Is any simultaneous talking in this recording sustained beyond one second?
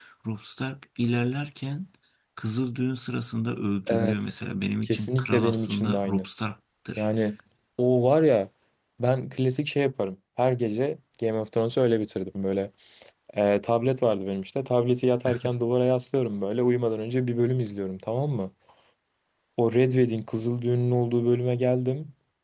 Yes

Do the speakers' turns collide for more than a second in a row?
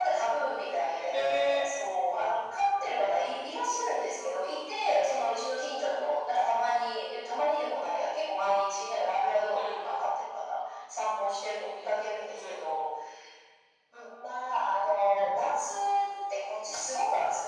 No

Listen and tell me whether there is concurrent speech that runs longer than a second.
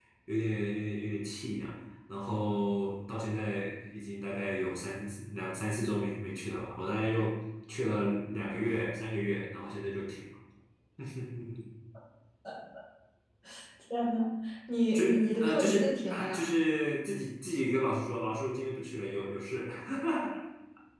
Yes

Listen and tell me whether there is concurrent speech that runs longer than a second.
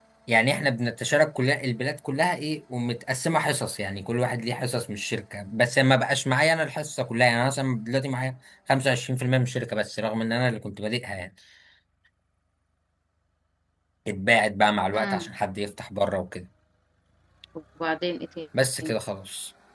No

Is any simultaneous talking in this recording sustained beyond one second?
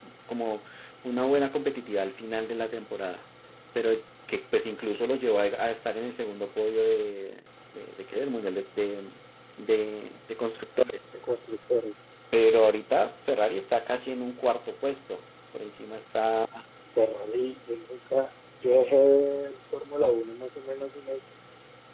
No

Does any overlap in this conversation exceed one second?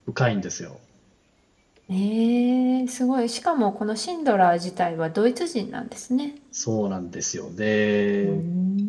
No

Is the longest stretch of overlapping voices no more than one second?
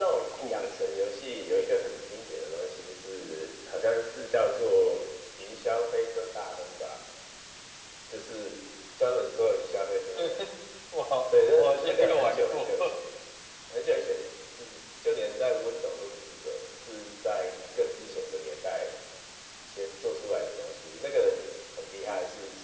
No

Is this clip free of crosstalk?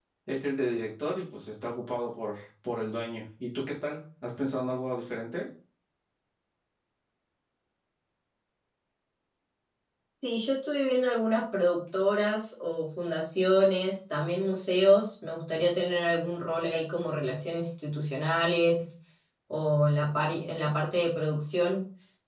Yes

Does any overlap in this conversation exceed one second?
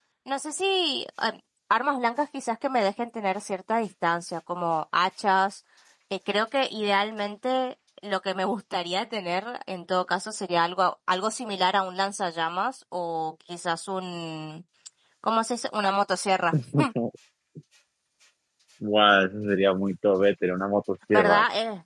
No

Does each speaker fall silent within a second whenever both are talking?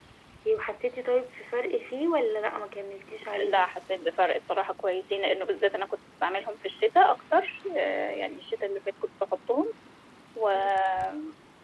Yes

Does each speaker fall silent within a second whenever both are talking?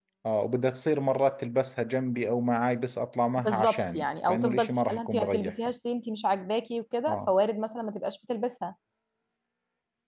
No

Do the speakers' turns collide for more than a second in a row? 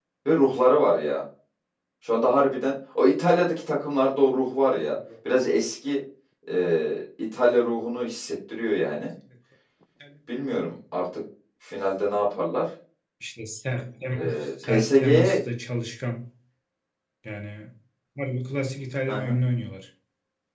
Yes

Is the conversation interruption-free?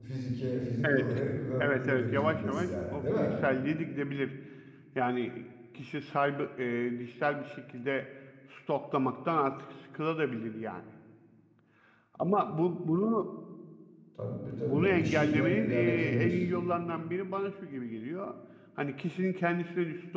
No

